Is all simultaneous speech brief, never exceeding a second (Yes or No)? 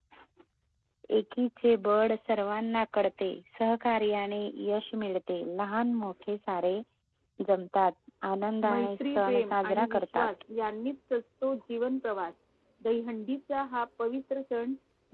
No